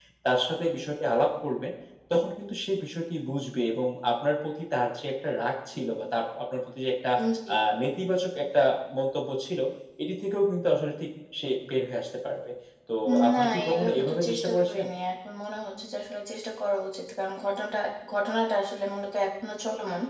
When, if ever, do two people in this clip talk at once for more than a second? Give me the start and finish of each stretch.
13.3-14.8

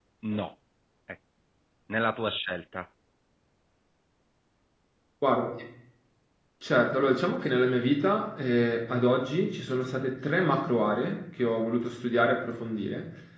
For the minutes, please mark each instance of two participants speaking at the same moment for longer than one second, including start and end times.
none

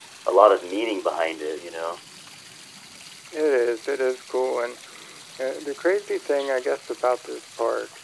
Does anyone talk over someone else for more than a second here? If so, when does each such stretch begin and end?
none

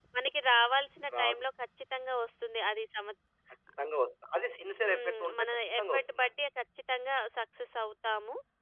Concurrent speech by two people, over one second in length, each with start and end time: 4.8-6.3

